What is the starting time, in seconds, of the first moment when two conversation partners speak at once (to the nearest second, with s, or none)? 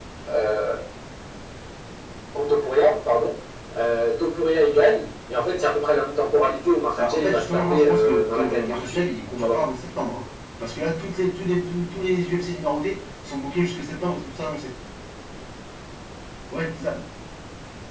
7 s